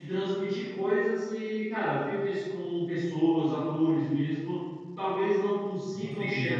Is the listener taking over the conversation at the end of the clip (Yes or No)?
No